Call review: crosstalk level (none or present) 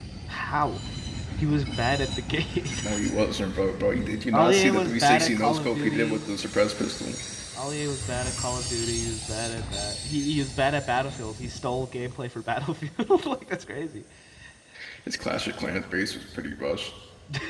present